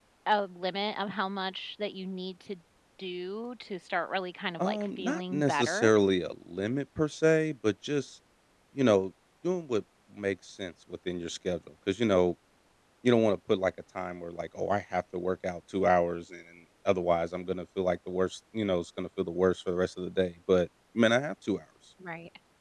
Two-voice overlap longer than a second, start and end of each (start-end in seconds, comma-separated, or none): 4.6-5.9